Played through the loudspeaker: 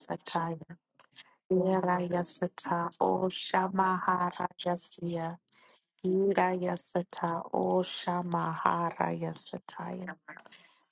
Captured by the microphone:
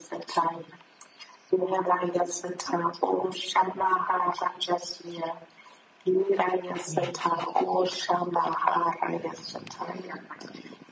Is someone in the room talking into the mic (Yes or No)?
Yes